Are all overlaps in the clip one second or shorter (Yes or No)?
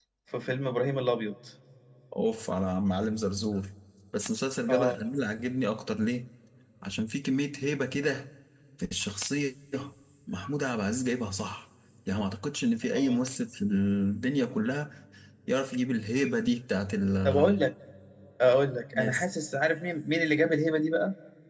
Yes